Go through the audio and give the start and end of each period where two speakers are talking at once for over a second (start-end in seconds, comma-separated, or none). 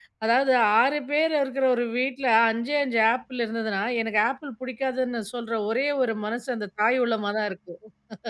none